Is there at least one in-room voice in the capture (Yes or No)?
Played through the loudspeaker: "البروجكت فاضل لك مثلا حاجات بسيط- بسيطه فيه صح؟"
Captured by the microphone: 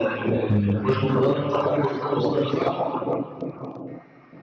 Yes